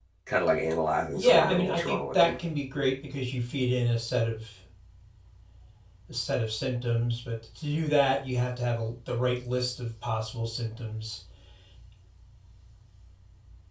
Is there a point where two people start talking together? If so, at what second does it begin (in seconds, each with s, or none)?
1.1 s